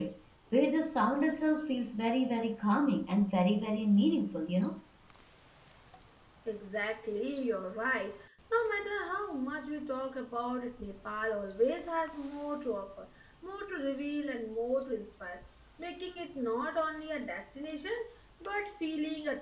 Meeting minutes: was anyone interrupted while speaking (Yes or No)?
No